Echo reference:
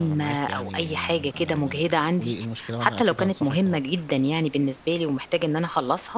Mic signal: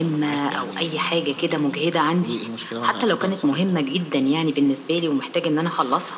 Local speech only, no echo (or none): none